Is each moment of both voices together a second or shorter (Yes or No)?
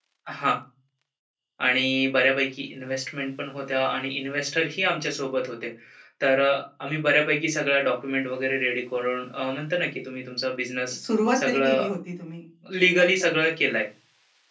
Yes